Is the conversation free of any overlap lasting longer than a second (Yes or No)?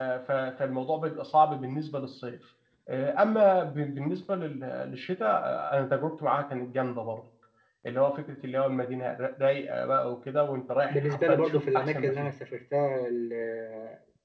No